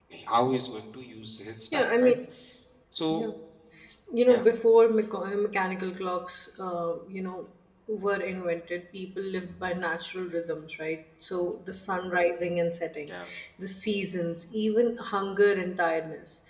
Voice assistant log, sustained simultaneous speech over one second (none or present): none